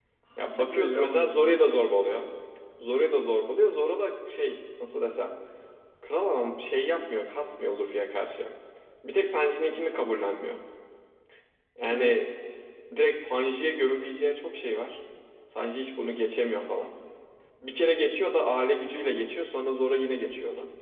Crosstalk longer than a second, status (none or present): present